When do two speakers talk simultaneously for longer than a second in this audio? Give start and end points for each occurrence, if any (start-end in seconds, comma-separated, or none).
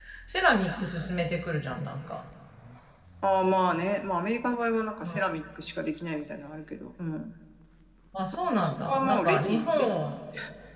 8.5-10.0